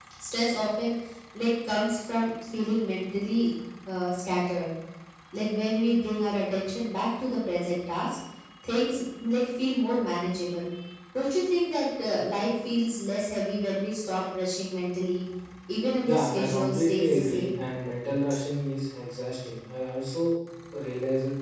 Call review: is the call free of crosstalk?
No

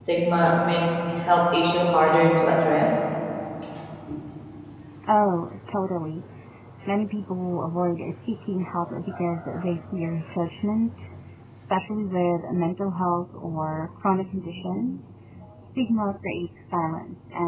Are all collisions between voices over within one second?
Yes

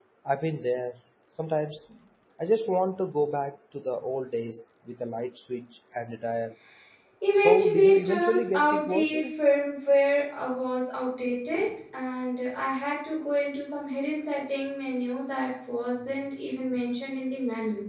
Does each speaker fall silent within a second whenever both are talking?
No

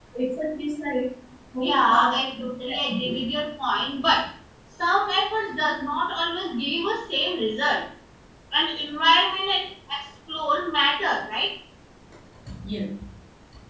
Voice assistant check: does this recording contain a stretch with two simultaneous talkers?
Yes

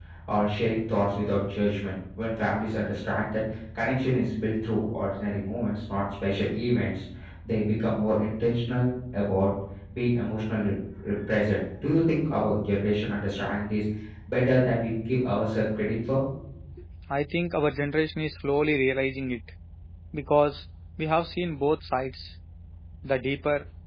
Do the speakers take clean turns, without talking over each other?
Yes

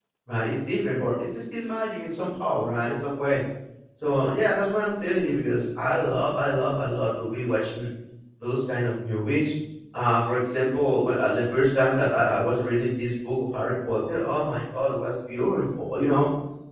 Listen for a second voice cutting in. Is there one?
No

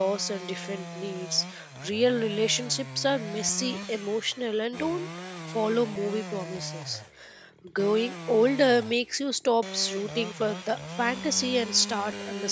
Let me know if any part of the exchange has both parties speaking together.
No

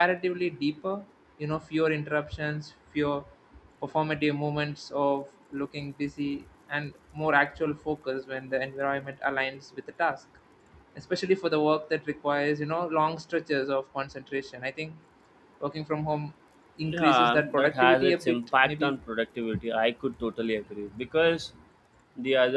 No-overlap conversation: No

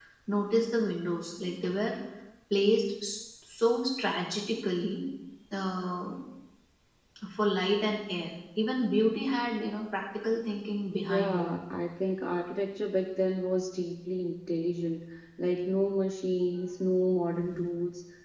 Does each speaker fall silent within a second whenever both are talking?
Yes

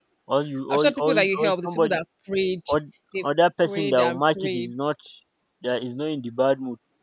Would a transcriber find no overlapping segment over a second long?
No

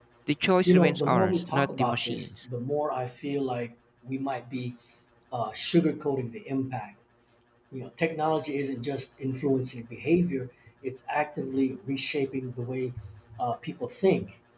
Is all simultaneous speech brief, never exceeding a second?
No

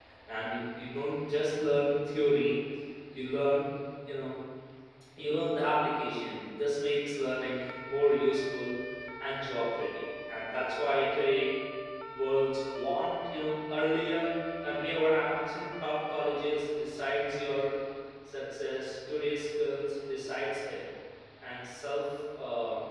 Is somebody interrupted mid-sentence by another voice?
No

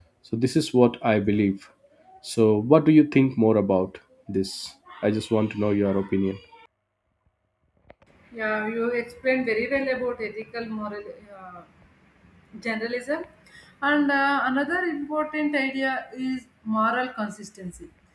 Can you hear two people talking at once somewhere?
No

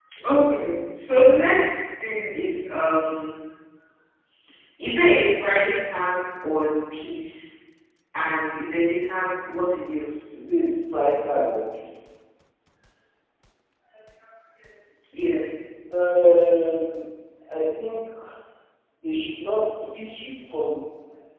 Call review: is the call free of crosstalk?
Yes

